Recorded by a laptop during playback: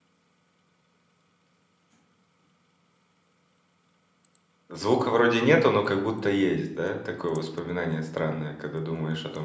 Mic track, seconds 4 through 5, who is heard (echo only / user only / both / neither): user only